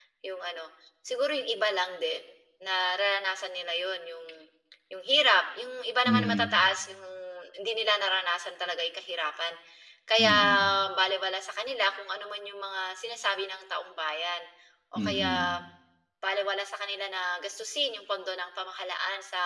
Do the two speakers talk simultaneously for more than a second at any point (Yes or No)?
No